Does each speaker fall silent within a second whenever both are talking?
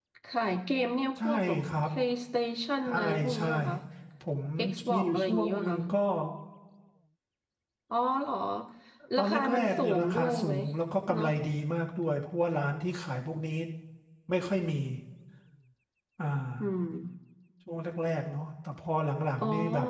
No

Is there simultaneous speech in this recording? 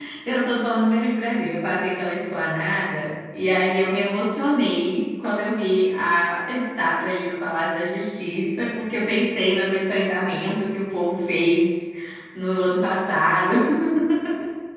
No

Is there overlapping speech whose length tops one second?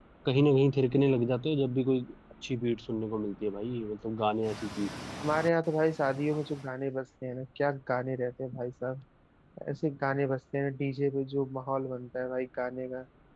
No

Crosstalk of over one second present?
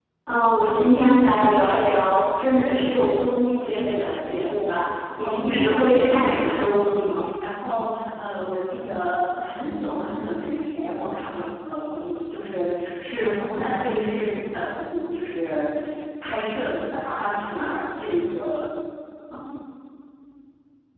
Yes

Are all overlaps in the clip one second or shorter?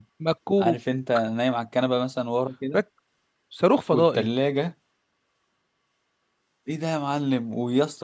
Yes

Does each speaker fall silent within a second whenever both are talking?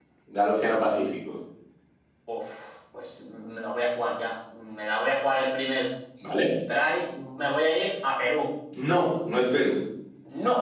Yes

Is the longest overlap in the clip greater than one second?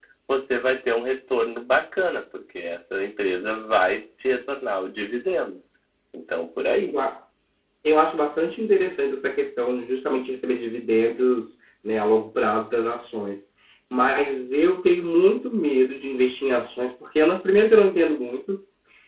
No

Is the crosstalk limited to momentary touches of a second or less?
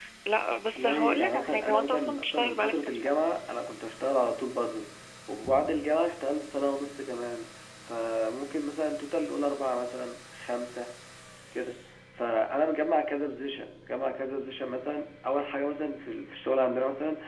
No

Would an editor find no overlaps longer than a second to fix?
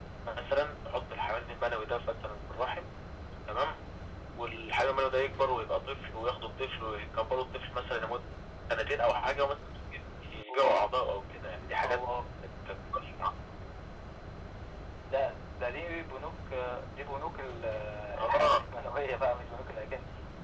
Yes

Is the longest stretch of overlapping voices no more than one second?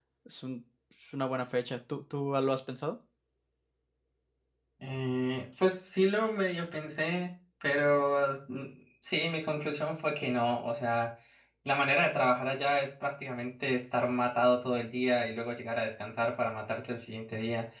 Yes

